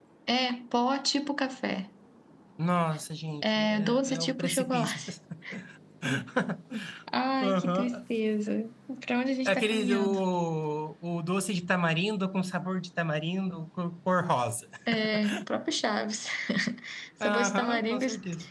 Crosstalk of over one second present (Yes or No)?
Yes